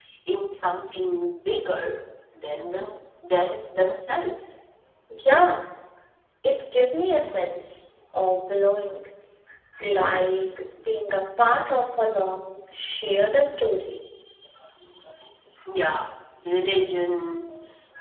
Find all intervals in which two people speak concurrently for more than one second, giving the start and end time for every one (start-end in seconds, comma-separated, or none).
none